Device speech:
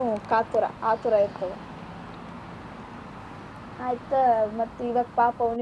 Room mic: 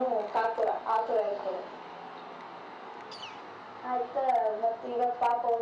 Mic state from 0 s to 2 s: echo only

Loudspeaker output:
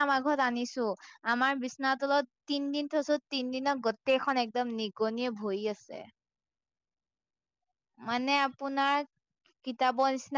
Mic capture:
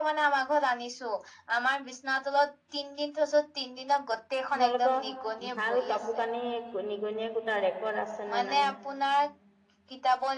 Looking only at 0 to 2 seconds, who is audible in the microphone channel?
echo only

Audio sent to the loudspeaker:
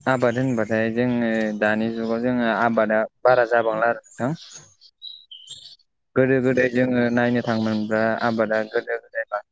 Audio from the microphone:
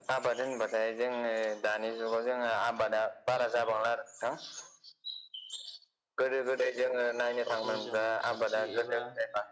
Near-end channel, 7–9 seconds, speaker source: both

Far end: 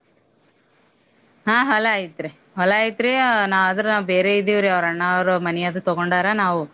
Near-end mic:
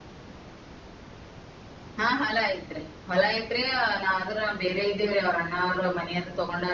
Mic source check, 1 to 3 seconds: echo only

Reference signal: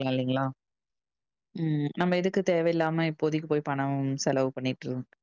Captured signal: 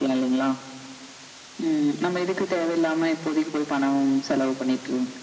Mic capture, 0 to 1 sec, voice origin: echo only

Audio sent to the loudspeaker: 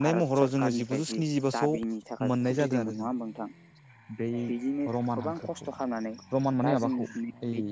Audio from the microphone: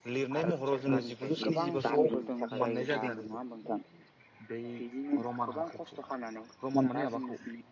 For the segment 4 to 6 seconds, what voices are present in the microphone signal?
echo only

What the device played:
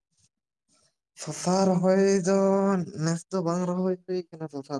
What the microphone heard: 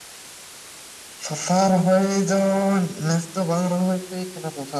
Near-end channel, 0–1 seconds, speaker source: neither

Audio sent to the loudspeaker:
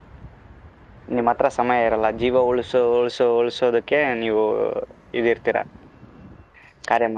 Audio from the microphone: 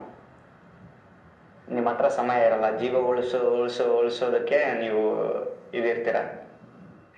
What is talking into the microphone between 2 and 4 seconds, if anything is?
echo only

